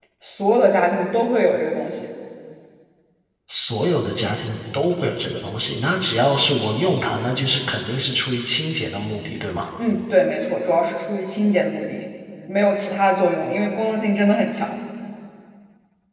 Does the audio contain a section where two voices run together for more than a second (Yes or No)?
No